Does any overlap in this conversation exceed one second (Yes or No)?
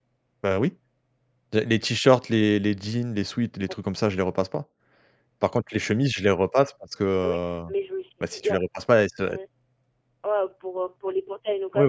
No